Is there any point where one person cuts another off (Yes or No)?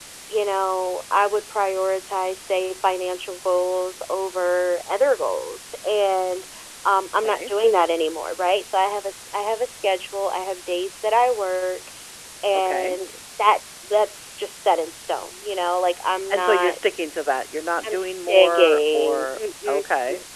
Yes